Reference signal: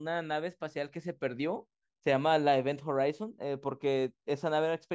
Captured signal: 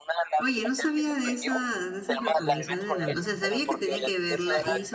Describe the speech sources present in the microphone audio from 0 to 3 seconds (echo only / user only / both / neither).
both